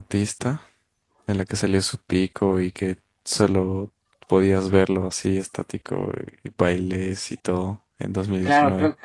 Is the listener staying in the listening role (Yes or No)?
No